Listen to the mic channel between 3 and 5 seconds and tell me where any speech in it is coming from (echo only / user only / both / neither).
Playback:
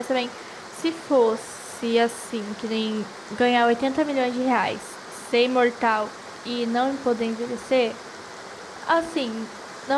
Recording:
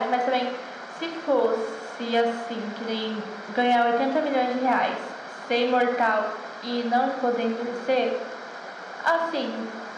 echo only